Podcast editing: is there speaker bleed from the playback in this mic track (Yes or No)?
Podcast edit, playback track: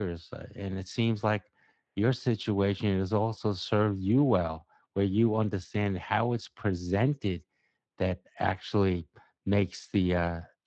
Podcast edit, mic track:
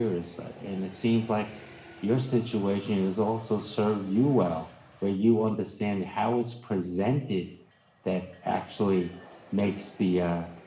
Yes